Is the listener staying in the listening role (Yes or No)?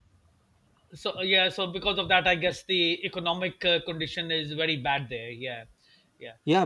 No